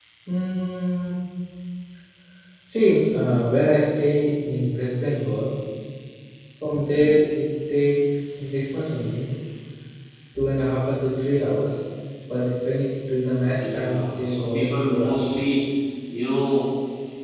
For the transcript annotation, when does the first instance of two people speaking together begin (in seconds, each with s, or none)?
13.4 s